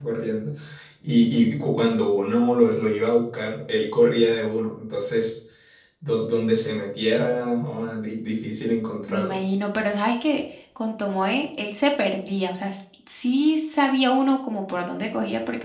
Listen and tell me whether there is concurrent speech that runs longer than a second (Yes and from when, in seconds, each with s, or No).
No